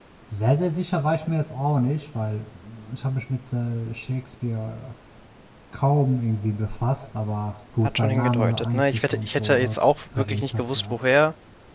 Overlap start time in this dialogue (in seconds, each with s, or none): 7.8 s